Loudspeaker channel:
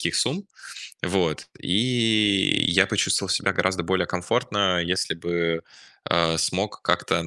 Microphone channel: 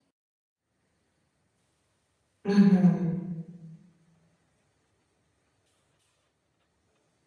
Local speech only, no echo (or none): Мгм.